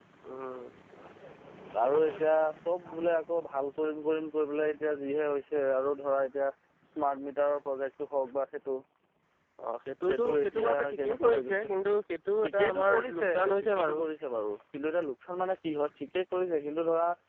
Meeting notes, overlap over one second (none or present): present